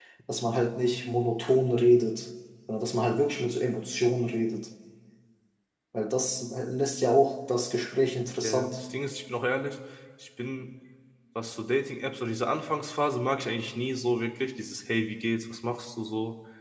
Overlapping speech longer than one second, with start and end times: none

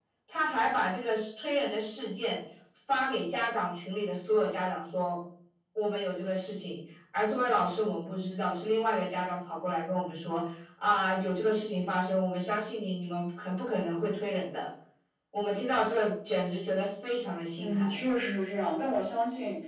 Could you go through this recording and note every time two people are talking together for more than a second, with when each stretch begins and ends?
none

